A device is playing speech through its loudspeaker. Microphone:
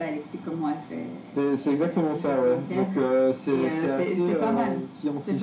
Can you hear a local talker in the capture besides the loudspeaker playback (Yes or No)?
No